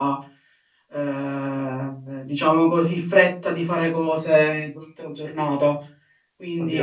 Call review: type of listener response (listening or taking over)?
taking over